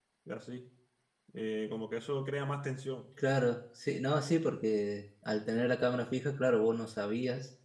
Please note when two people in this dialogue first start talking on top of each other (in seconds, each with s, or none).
none